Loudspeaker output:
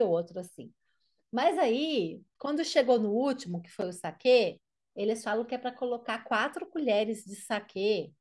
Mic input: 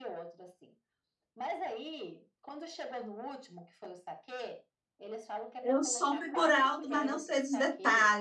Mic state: both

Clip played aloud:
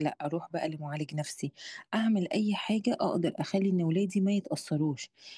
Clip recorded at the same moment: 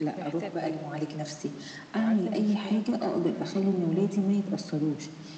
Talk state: both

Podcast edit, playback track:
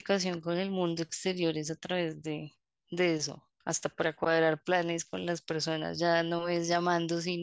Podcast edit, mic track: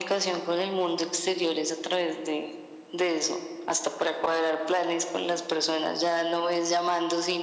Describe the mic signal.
echo only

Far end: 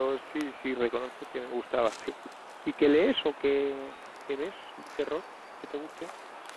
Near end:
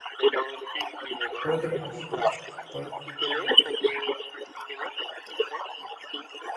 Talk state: both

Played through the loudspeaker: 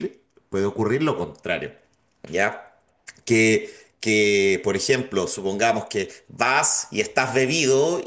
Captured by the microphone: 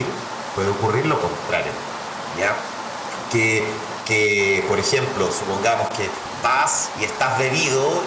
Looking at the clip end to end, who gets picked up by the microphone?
echo only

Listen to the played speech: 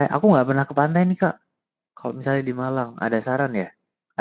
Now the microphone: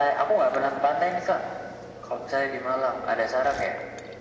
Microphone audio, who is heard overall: echo only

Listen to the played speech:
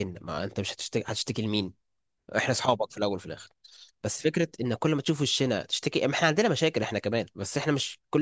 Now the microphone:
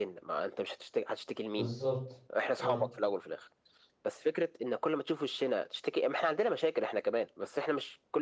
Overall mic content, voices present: both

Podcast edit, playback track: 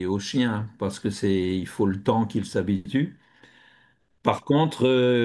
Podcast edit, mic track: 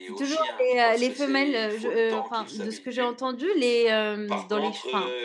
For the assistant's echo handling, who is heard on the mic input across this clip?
both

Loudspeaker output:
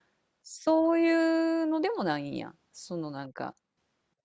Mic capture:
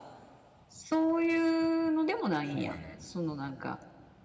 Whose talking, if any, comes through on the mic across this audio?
both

